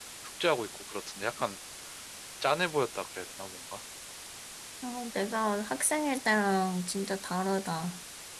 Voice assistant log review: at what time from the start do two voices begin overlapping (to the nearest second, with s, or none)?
none